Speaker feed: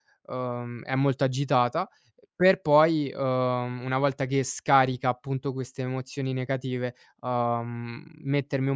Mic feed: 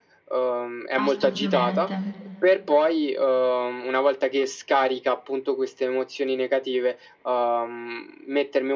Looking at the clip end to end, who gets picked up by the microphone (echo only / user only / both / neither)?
both